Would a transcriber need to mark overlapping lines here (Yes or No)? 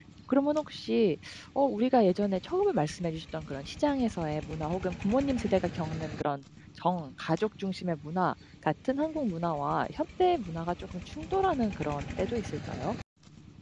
No